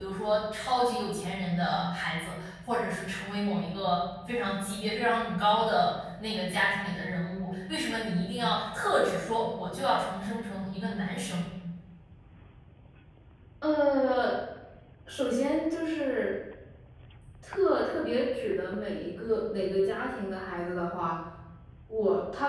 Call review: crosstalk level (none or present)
none